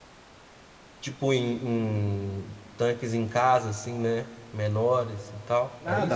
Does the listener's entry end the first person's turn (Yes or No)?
Yes